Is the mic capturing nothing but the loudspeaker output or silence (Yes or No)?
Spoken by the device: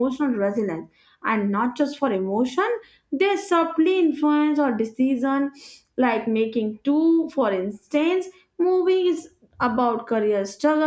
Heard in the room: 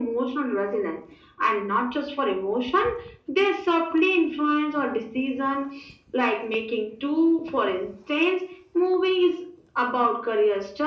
Yes